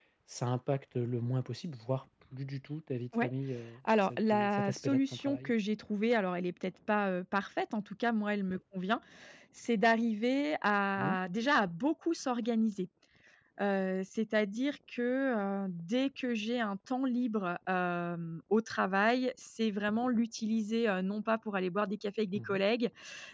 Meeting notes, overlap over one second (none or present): present